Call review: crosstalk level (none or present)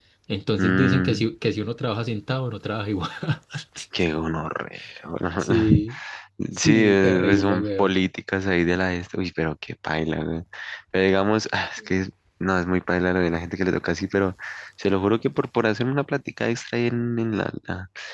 present